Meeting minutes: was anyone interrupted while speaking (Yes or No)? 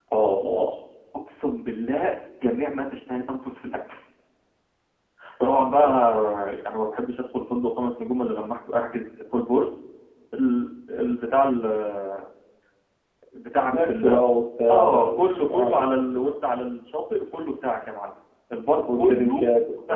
Yes